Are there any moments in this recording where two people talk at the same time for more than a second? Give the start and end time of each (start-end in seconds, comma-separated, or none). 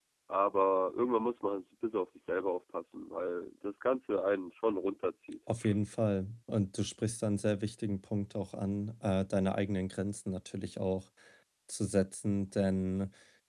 none